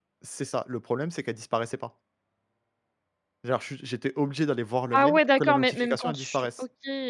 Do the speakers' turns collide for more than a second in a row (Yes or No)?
Yes